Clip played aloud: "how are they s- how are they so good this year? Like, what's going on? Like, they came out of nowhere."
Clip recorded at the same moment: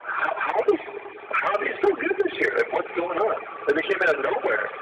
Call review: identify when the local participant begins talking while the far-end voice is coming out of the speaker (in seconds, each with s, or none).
none